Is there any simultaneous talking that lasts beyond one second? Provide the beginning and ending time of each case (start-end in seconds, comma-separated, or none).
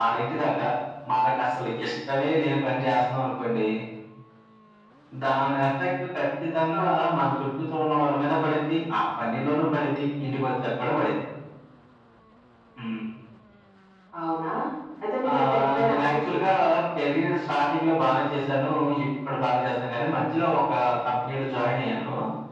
15.3-16.5